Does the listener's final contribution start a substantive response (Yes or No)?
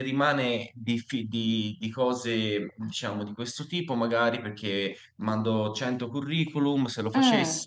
No